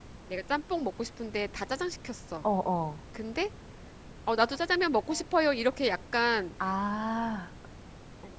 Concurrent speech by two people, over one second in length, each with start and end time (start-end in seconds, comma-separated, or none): none